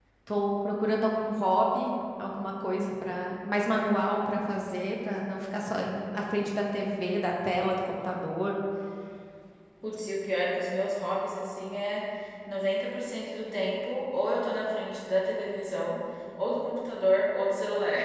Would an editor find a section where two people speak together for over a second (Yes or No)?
No